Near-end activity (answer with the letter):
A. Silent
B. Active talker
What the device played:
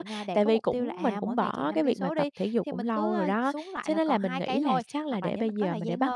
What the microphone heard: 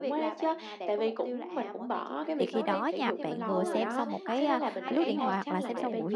B